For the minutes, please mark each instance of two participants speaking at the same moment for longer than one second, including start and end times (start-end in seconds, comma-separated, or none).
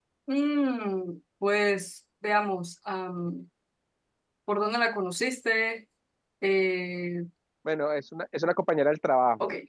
none